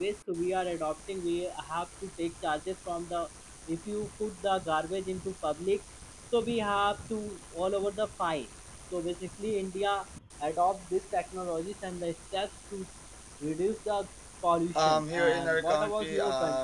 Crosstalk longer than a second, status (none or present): present